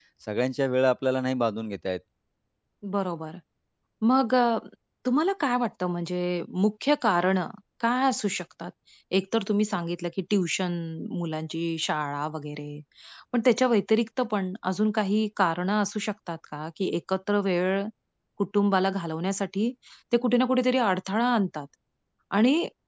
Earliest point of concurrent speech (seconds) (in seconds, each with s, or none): none